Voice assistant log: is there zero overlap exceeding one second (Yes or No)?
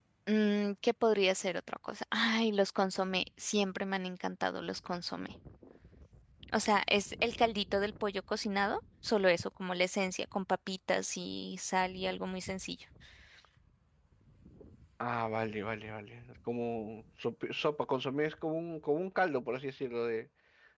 Yes